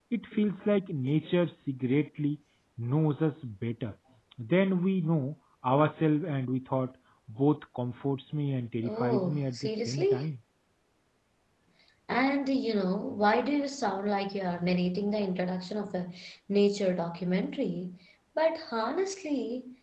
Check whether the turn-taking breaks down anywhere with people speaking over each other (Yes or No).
Yes